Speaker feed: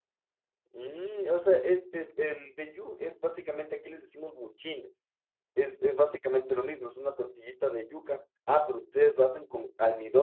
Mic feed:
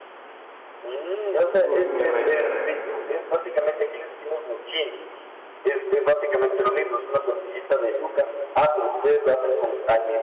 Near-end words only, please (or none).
uy, qué rico, qué rico.